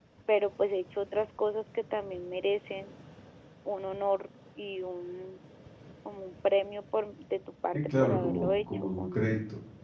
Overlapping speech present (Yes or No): Yes